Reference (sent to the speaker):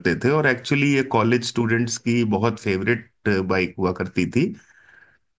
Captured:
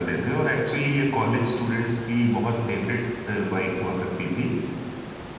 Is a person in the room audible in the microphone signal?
No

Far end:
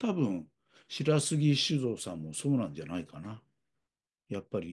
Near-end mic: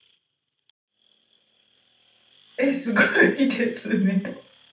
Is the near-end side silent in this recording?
No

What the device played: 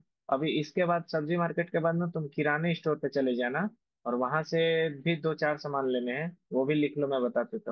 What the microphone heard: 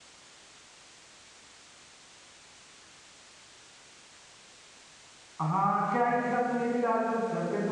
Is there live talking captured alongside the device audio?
Yes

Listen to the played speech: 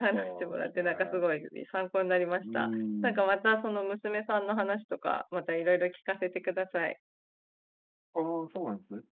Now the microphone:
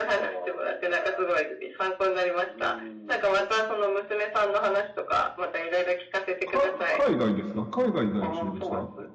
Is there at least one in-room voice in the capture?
Yes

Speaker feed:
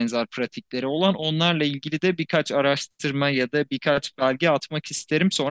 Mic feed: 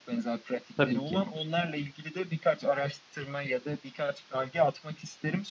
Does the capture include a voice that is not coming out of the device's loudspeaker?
Yes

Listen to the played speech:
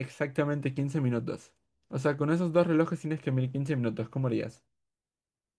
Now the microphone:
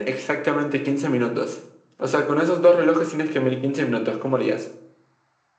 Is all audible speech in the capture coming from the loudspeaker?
Yes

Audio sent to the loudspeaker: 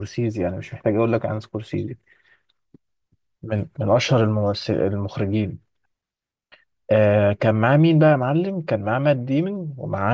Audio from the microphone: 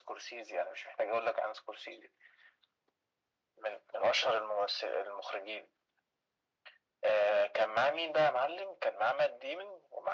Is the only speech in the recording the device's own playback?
Yes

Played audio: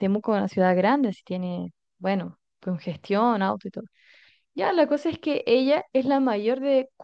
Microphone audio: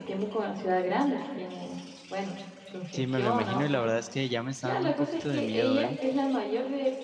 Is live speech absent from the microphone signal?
No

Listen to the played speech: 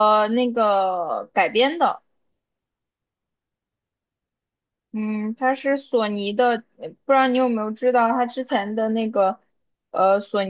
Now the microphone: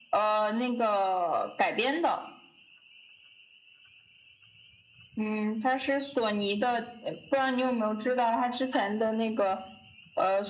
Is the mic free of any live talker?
Yes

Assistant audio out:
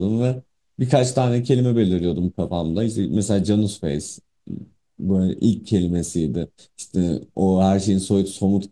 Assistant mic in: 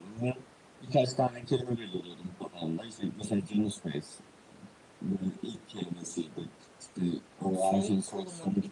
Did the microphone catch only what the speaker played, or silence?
No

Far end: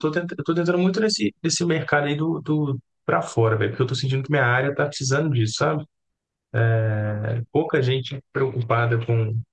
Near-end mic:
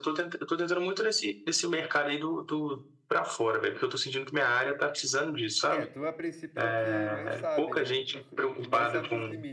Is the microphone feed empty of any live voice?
No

